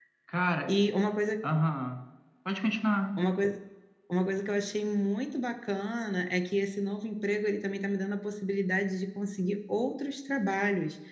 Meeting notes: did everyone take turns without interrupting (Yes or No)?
Yes